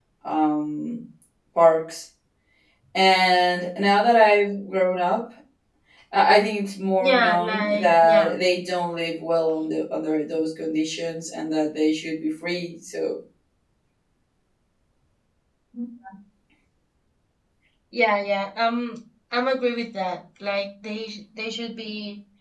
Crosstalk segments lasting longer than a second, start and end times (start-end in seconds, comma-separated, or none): 7.0-8.3